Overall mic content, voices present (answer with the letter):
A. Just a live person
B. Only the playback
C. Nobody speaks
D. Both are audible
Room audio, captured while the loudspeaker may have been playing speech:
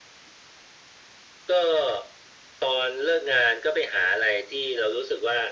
B